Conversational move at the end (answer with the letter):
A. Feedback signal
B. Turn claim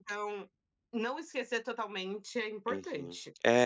B